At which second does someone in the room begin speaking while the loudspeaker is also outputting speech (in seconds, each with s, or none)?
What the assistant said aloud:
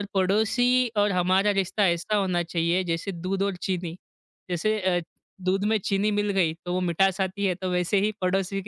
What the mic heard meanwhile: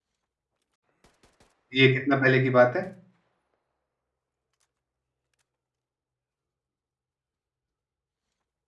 1.8 s